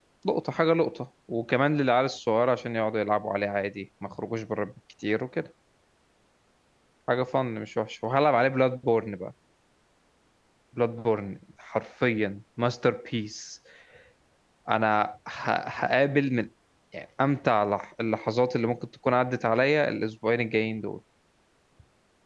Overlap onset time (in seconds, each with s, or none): none